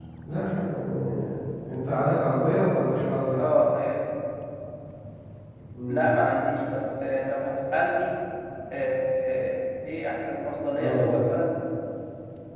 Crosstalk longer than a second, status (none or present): none